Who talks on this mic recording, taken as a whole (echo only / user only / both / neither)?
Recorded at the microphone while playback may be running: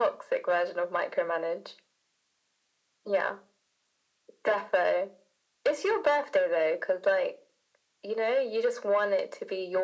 echo only